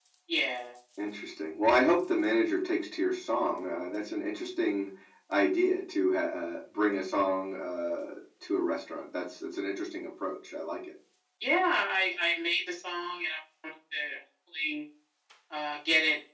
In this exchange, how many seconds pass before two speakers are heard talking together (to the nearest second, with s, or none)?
none